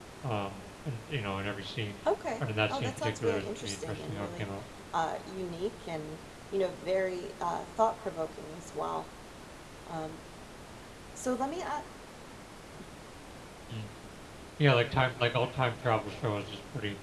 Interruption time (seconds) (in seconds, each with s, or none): 2.7 s